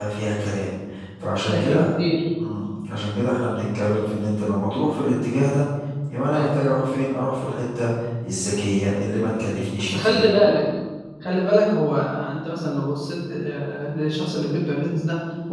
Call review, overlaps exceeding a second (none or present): none